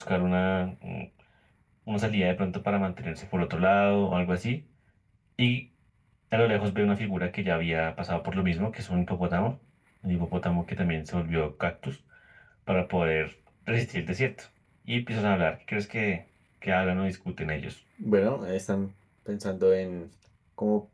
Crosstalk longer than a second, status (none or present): none